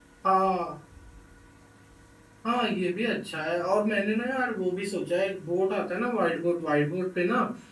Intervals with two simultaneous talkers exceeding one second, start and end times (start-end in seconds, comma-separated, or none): none